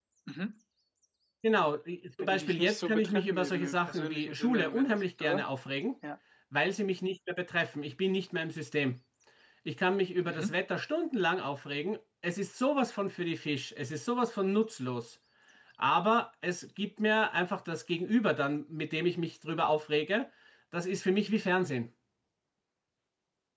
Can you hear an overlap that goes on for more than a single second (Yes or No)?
Yes